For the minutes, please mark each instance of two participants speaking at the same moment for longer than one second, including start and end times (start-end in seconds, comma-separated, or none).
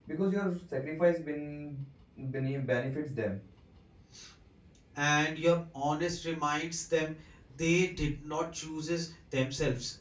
none